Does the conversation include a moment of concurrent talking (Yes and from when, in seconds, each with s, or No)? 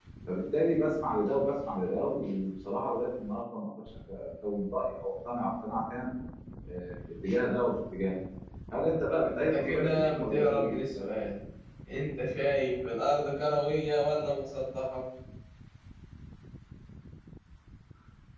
Yes, from 9.4 s